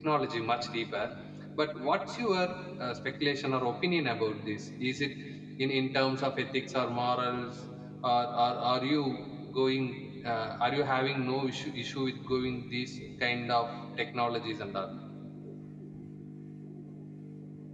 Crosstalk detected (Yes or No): No